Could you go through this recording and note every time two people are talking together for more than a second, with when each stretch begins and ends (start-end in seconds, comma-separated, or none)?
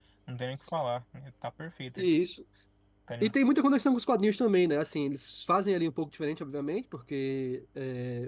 none